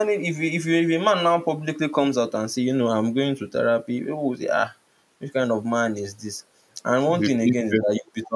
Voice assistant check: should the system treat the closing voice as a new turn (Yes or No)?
No